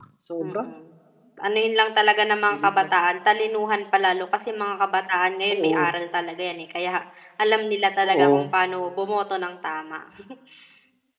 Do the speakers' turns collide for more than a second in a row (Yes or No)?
No